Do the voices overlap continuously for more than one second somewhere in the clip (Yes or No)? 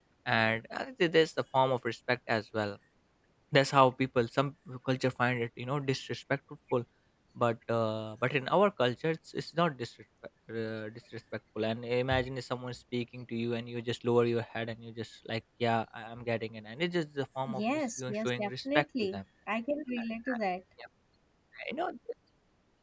Yes